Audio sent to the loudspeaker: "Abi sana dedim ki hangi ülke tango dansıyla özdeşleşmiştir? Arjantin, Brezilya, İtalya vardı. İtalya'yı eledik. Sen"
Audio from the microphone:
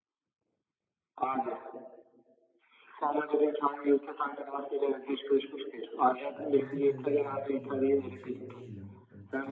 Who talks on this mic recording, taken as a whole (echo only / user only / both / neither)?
both